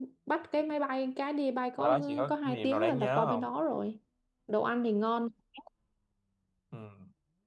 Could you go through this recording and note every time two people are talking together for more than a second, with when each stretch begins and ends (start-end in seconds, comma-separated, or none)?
1.8-3.5